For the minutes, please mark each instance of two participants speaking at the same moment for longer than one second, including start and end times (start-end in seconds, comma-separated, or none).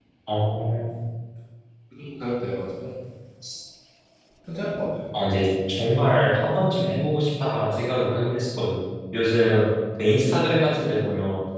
none